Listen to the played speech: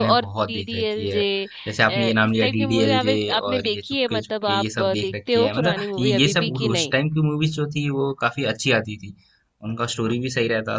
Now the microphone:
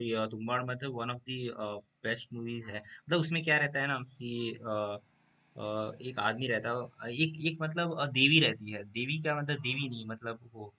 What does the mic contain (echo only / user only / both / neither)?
user only